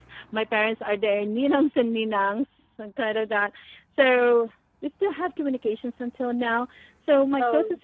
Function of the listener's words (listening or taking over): listening